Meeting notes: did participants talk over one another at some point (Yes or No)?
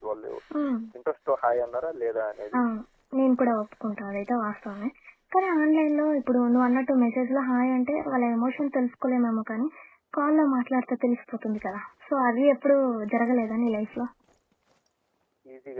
No